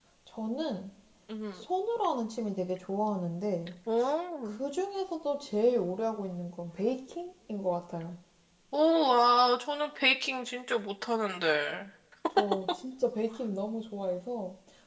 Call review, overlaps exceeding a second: none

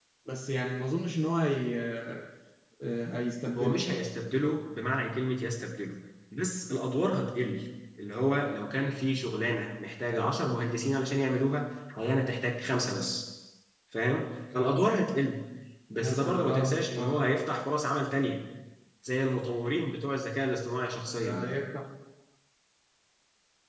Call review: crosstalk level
present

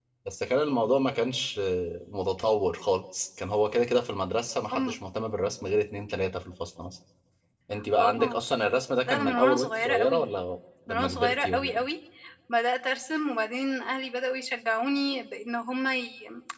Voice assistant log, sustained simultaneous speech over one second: present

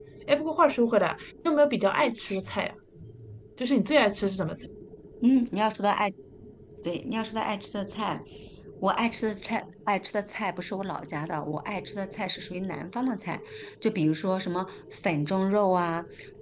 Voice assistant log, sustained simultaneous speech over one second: none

